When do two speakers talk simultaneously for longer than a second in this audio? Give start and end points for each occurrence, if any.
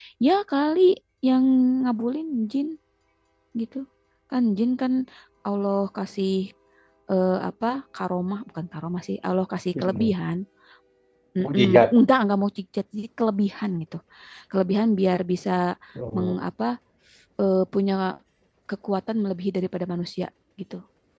none

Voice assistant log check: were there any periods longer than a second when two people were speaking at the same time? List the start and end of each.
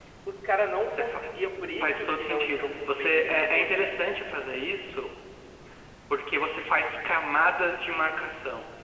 1.8-4.0

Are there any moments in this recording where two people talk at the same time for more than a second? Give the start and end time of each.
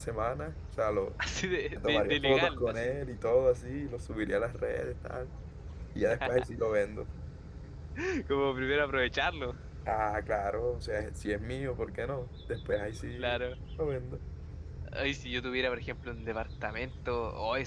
1.8-3.0

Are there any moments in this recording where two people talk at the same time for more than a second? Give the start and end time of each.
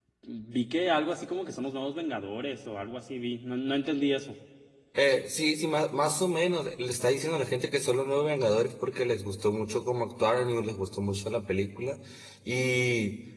none

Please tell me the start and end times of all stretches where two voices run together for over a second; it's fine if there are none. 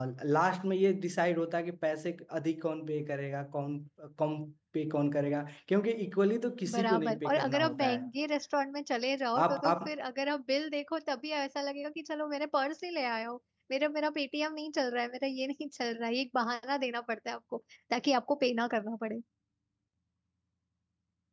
6.7-8.0

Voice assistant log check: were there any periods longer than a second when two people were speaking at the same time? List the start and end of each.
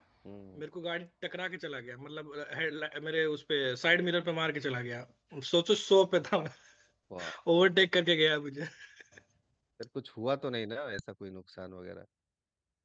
none

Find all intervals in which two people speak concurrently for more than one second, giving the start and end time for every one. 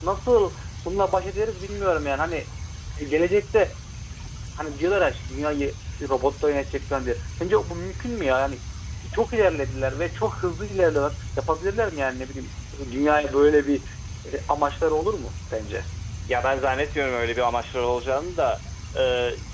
none

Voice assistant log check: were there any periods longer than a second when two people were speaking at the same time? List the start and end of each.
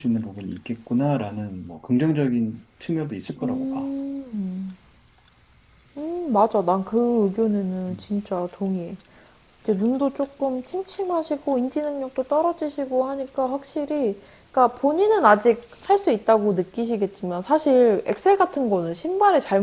none

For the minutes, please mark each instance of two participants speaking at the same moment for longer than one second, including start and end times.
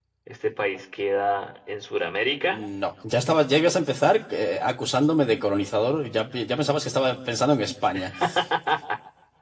none

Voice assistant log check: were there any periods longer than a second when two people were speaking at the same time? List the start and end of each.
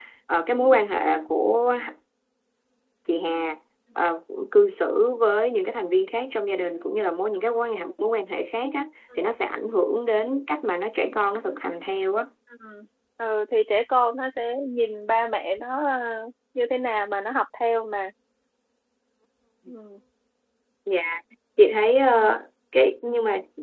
none

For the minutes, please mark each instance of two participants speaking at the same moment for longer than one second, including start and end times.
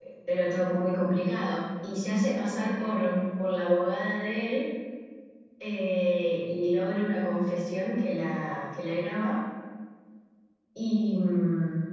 none

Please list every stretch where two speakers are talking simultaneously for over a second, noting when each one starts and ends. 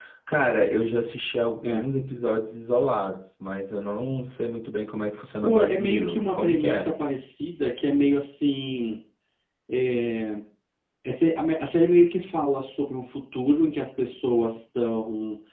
5.4-6.9

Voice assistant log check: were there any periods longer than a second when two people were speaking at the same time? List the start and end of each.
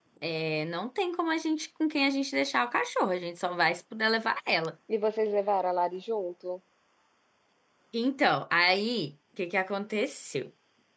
none

